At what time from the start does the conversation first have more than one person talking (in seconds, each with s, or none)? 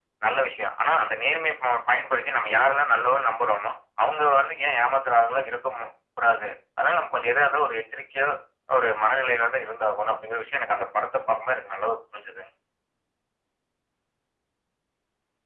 none